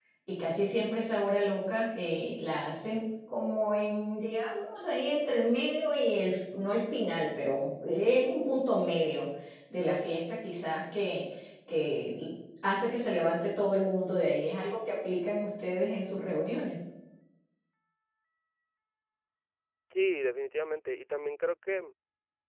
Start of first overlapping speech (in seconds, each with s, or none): none